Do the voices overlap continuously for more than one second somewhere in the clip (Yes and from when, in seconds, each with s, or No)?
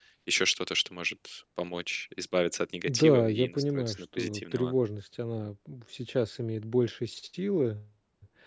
Yes, from 2.9 s